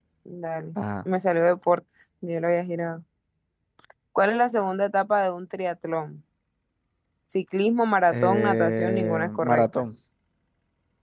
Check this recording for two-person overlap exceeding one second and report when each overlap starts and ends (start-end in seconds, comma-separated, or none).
8.1-9.6